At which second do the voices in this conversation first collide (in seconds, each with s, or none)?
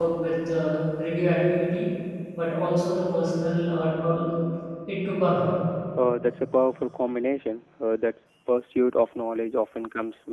none